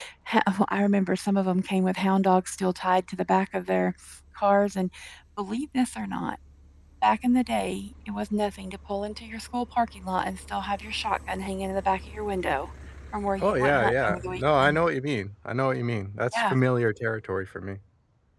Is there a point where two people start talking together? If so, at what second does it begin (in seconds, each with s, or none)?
13.4 s